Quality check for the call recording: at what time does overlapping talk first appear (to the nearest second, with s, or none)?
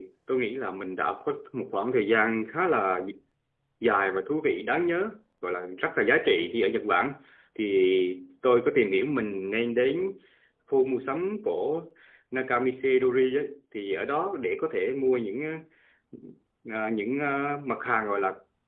none